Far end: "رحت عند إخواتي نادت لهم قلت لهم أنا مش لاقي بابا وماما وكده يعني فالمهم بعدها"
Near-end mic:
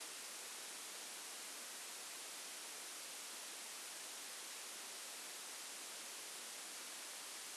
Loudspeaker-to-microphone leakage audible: No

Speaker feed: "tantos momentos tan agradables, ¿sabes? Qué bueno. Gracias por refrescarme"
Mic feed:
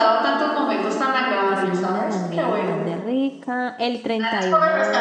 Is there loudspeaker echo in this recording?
Yes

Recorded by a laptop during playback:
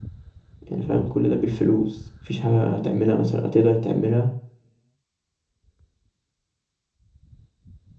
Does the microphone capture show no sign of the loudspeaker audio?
Yes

